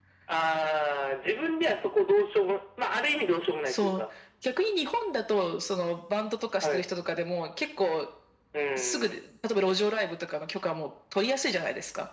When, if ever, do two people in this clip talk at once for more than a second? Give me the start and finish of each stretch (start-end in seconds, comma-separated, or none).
none